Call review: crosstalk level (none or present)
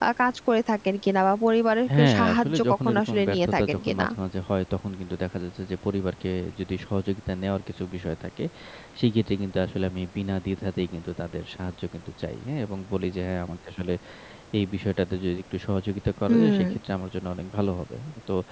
present